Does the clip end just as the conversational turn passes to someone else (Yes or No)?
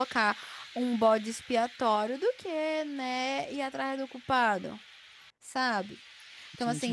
No